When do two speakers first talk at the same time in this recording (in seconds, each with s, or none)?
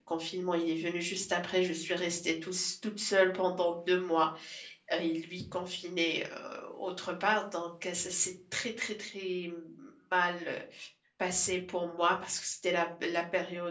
none